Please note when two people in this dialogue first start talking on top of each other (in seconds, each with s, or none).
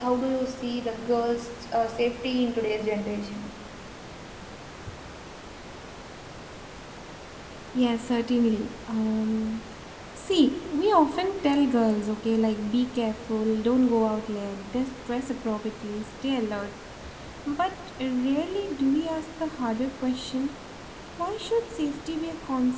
none